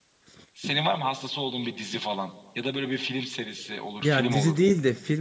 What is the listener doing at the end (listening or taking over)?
taking over